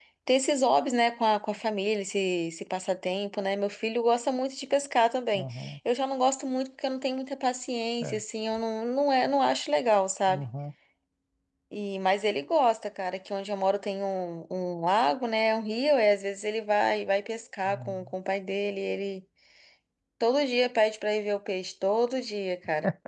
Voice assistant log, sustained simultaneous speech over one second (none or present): none